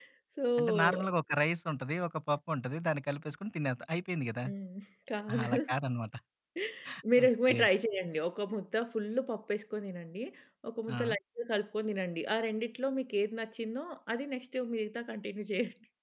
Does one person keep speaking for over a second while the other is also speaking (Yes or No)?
No